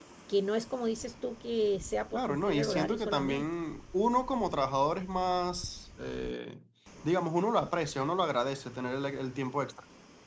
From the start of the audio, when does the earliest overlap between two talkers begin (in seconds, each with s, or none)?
2.1 s